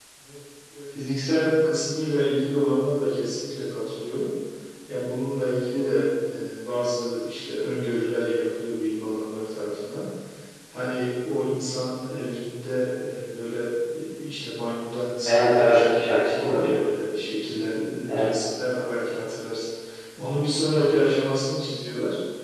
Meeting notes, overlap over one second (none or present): present